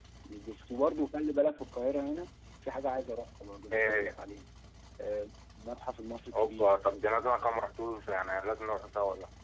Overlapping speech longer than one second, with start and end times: none

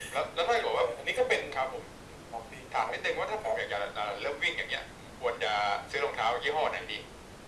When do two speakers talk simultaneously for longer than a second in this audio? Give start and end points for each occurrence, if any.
none

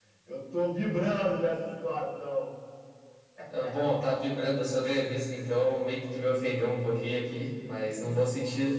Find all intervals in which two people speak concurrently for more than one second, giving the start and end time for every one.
none

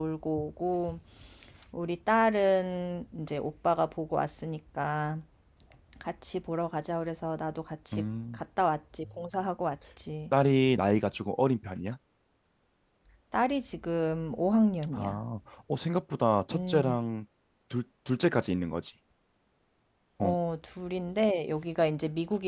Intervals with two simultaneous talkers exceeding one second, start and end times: none

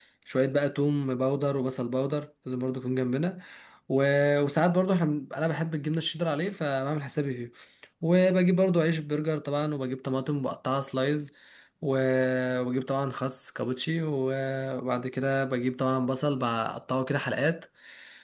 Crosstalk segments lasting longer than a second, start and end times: none

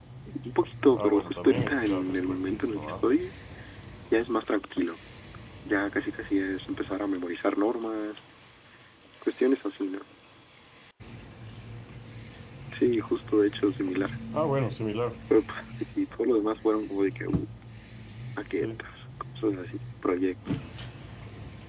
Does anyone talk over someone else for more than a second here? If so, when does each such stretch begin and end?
0.9-3.0

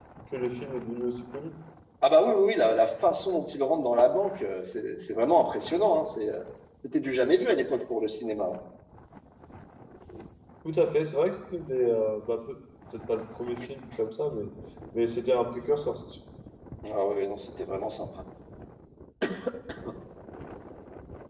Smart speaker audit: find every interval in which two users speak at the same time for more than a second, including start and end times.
none

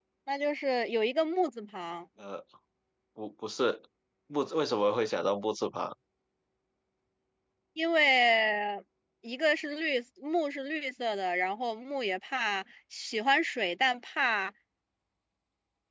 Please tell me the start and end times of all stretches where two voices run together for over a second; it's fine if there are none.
none

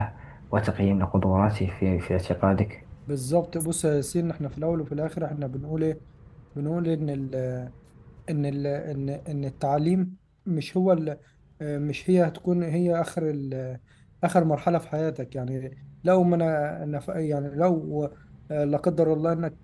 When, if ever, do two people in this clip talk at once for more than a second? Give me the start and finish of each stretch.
none

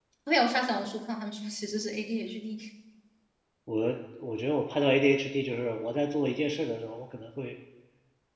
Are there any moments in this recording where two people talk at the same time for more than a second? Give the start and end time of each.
none

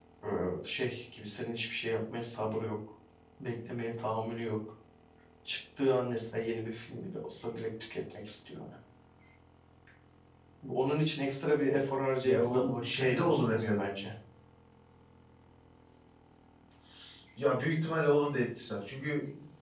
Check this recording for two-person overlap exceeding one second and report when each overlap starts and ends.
12.2-13.9

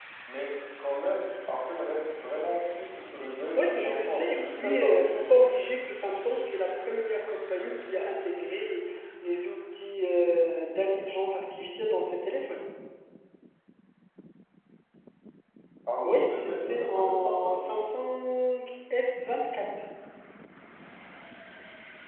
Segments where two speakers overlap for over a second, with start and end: 3.6-4.9, 16.0-17.6

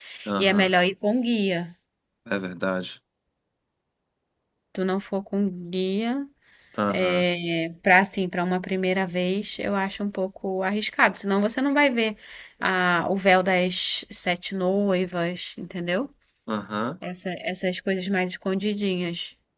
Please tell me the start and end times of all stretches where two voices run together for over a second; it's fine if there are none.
none

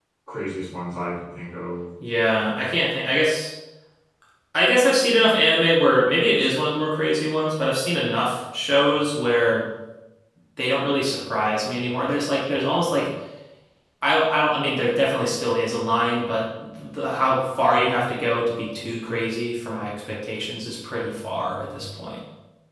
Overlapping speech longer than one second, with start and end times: none

